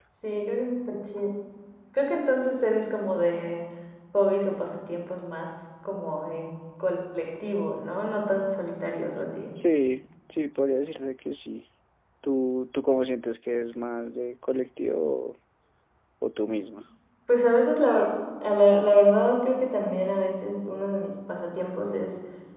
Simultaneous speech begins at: none

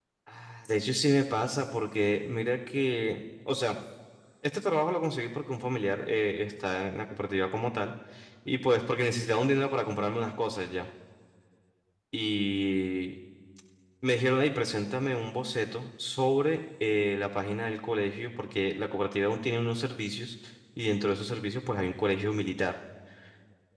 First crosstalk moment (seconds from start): none

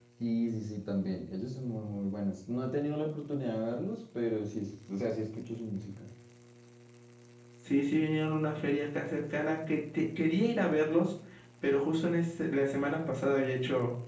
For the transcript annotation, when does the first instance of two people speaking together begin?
none

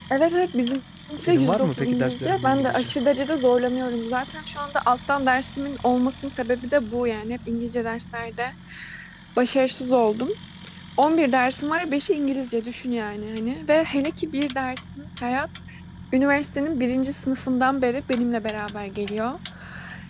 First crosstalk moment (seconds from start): 1.2 s

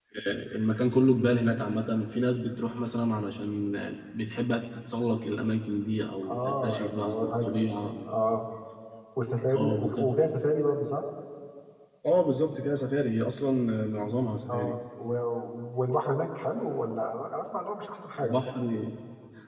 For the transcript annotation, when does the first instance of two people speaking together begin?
6.3 s

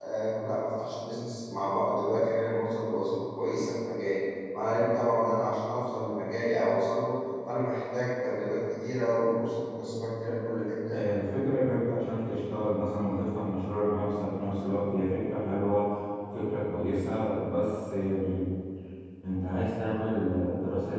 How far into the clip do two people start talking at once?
none

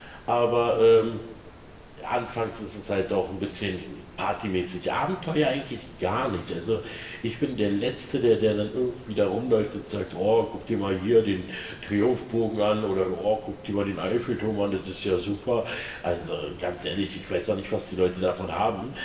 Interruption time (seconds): none

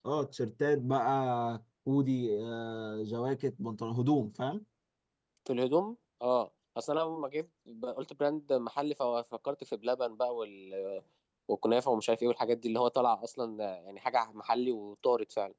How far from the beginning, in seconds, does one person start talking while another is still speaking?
none

